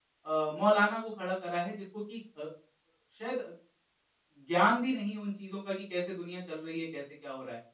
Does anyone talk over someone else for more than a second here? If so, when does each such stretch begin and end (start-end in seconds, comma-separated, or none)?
none